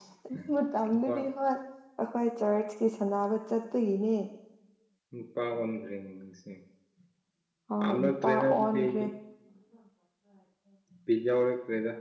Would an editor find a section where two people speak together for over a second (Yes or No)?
Yes